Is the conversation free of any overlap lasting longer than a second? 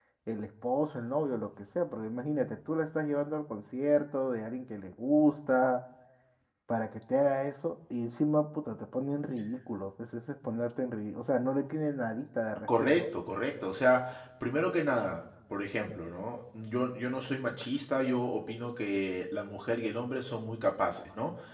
Yes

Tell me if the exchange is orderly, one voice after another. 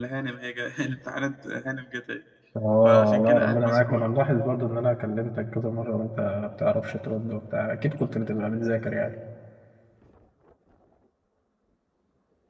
No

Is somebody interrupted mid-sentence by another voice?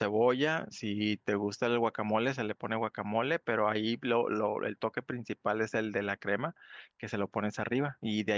No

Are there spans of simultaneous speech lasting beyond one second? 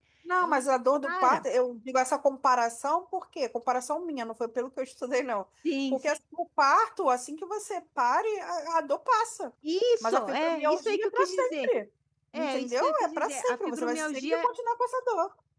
Yes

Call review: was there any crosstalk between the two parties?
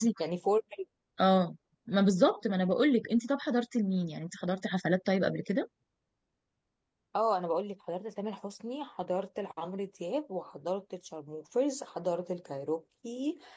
No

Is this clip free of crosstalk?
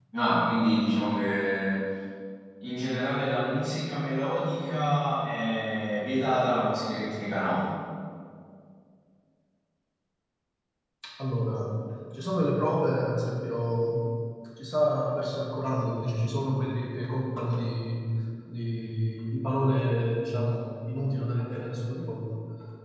Yes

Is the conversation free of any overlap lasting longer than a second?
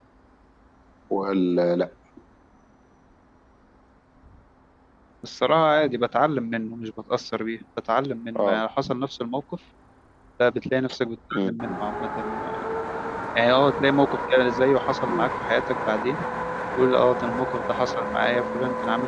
Yes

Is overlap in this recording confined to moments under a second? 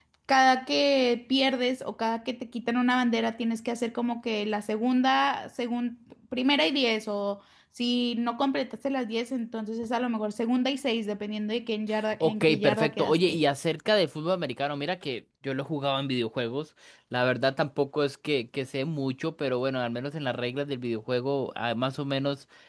No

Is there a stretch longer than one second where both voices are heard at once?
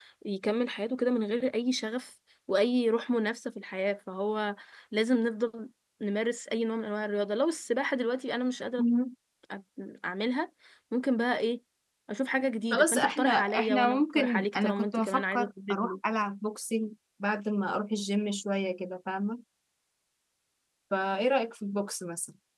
Yes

